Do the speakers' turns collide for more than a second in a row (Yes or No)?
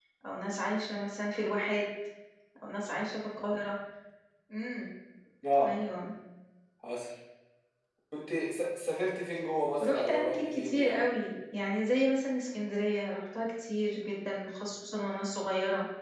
Yes